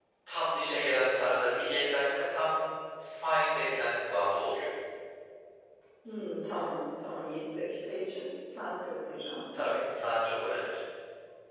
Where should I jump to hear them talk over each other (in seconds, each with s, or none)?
none